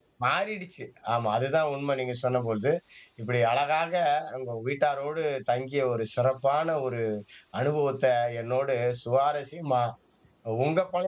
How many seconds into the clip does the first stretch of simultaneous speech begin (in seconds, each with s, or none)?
none